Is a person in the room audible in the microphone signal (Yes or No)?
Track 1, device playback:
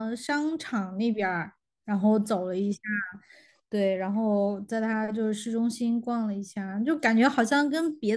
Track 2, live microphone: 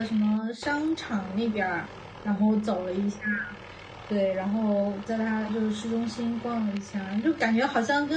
No